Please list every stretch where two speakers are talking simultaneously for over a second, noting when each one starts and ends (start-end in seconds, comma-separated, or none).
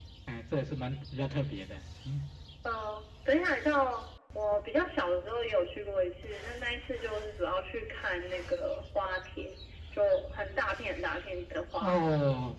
none